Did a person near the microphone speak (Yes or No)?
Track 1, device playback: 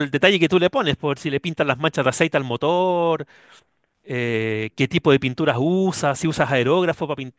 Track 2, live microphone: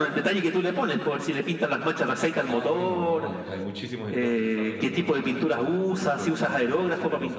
Yes